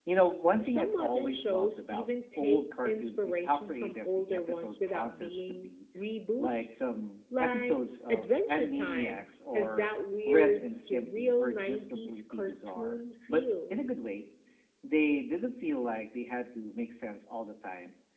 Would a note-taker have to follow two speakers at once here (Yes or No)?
Yes